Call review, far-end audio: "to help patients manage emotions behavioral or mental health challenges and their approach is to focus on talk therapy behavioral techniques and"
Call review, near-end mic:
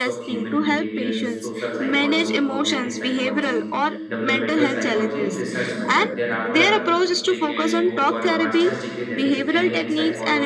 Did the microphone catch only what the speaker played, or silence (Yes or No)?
No